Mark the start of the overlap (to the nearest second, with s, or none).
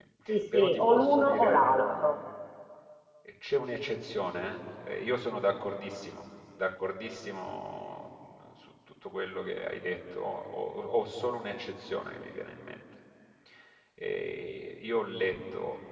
1 s